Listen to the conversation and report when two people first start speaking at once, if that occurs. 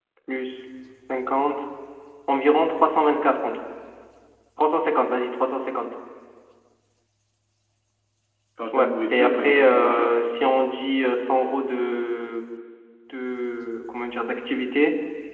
9 s

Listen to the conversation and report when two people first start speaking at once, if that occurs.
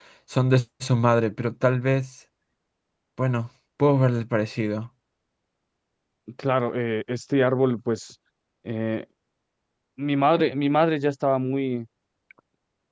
none

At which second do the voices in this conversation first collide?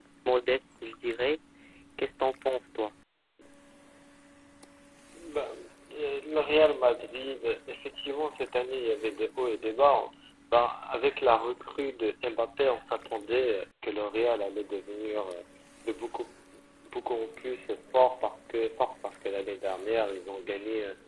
none

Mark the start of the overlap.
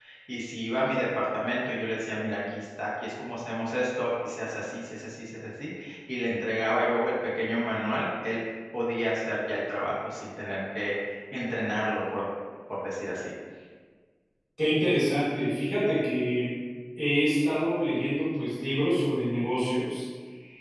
none

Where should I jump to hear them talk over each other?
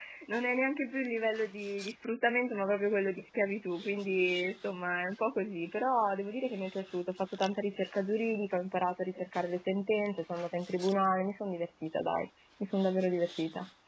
none

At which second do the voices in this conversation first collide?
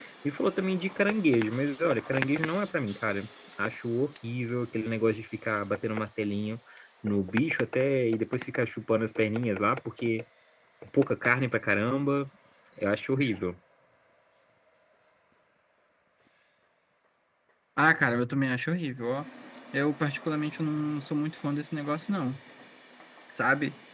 none

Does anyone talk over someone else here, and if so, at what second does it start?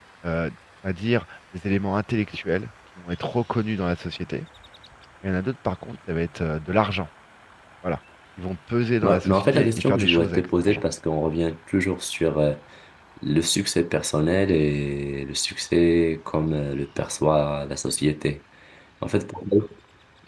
9 s

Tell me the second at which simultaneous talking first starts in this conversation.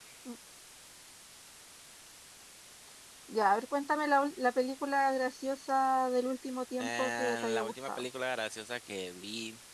7 s

